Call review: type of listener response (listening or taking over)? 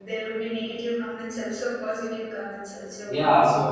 taking over